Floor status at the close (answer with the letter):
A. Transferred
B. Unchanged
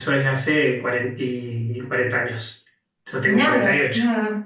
A